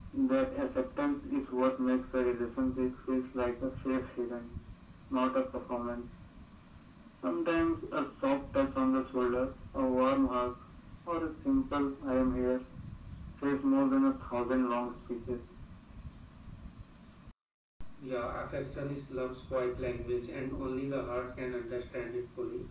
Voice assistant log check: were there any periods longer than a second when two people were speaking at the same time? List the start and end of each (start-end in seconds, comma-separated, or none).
none